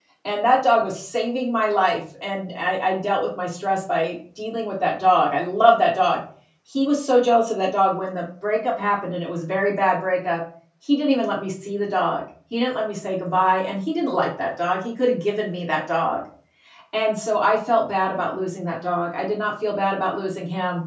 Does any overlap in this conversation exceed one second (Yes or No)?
No